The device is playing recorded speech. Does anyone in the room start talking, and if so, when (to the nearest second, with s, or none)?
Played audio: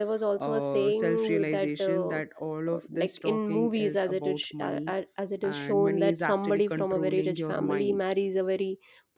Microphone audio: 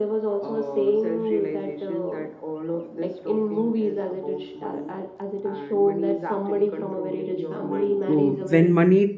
8 s